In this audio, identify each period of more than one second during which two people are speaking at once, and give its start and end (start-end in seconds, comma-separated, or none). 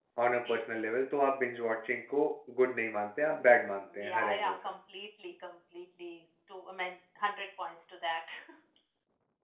3.3-4.5